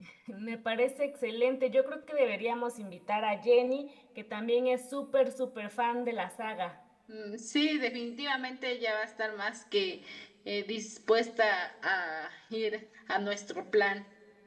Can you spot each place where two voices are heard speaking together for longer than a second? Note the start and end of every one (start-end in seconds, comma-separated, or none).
none